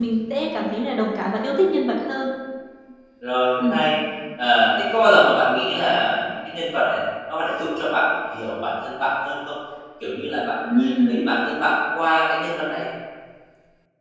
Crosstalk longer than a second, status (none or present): none